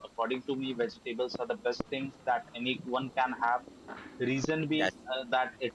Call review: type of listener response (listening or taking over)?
listening